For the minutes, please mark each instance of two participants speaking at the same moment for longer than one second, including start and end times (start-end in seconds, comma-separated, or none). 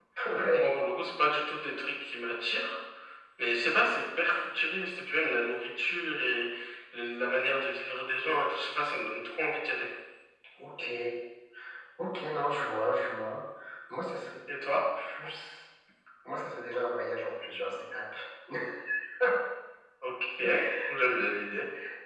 none